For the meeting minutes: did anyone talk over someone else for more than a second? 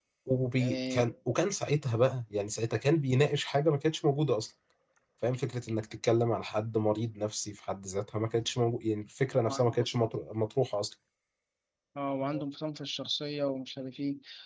No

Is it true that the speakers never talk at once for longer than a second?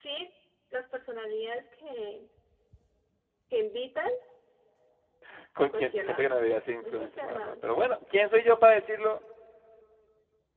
No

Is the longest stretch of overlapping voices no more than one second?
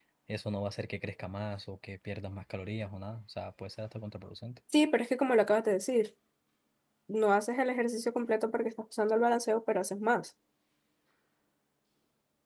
Yes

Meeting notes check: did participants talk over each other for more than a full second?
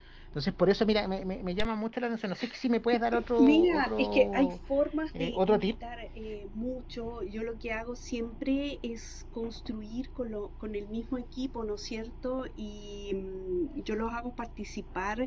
Yes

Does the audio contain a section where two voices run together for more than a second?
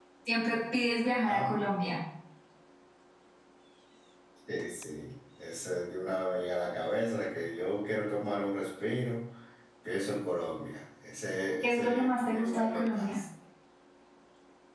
Yes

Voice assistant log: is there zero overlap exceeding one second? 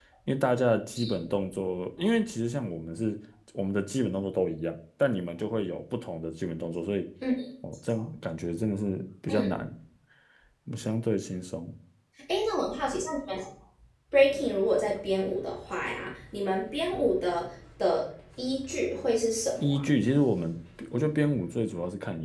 Yes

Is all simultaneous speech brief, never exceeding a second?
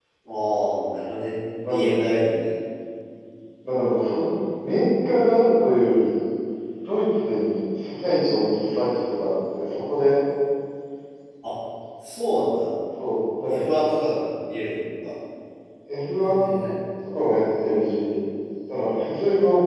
Yes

